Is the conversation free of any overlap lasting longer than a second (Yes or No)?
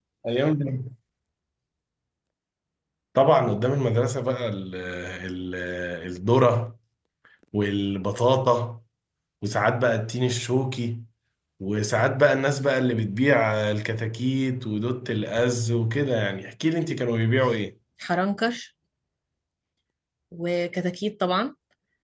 Yes